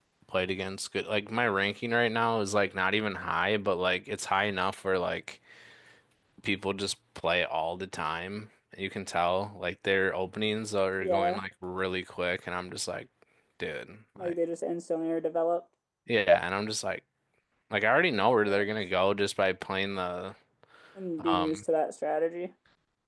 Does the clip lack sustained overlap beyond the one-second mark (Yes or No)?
Yes